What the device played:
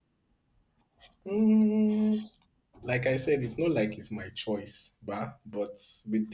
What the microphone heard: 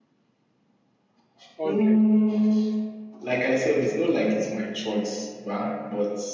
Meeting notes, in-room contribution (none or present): present